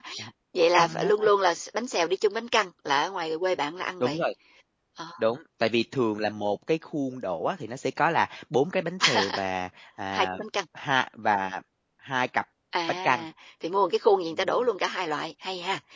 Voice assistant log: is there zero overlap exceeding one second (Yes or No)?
Yes